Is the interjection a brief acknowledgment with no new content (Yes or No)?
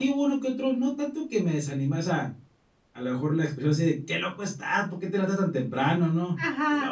Yes